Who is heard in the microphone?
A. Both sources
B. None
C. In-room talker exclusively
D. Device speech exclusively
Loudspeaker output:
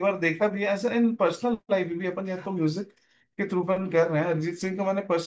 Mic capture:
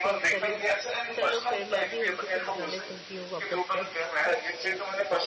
A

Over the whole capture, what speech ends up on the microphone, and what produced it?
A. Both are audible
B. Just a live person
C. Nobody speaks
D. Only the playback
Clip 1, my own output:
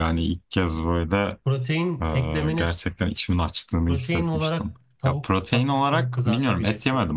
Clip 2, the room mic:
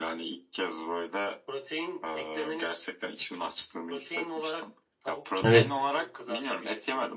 A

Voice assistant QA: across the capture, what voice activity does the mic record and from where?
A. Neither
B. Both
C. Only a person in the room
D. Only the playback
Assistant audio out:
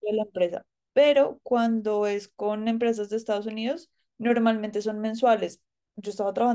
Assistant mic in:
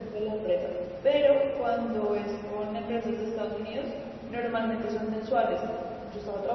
D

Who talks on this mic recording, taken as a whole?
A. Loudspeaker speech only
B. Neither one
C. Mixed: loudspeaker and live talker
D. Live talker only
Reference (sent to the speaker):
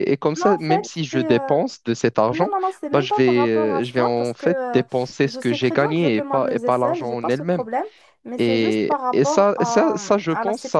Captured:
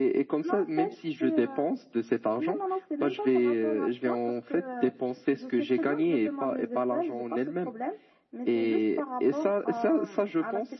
A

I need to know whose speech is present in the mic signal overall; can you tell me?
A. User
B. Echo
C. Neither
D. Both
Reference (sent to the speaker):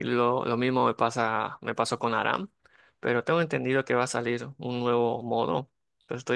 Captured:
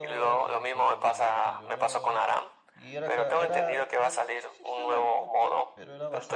D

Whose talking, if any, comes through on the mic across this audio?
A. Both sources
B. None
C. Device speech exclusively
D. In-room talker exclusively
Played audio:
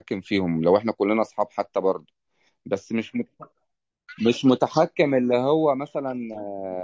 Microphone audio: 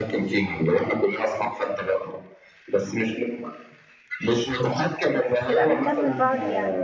A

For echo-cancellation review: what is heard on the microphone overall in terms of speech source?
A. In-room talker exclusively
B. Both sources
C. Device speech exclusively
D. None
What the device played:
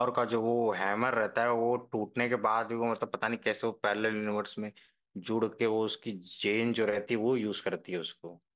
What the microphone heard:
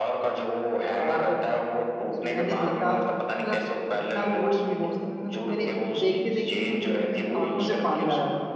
B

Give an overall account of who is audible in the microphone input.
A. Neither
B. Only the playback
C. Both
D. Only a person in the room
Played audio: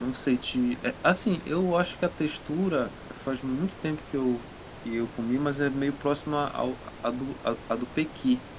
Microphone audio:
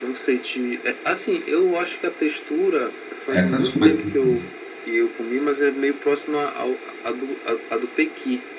C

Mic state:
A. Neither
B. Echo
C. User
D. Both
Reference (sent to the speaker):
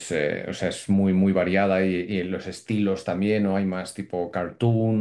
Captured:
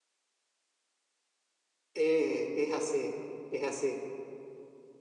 C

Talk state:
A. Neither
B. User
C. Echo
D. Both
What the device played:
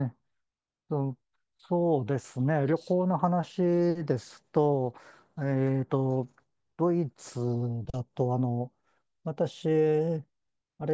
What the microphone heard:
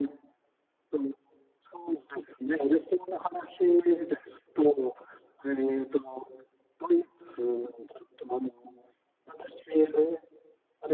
C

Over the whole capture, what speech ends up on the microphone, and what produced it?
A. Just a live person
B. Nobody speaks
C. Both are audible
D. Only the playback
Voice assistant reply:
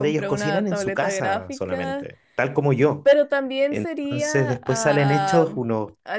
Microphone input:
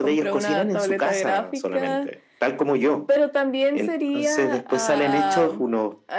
D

